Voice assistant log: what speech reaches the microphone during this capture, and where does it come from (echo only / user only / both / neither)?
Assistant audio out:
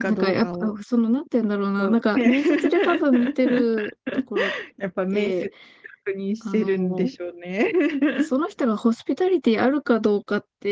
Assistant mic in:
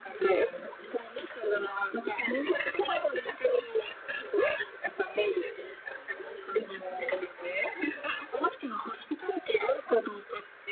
echo only